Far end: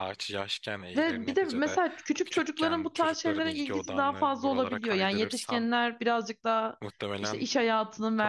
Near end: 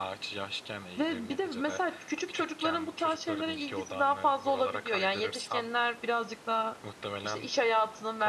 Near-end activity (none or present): none